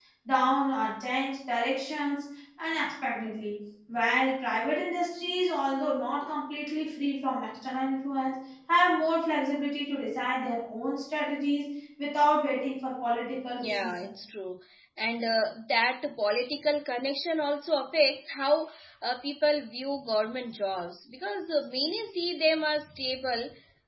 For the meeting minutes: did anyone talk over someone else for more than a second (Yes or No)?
No